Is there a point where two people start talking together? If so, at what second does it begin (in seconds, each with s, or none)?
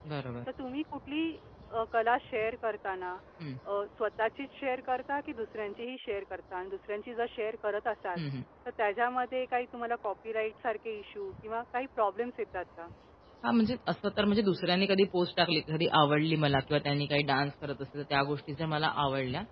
none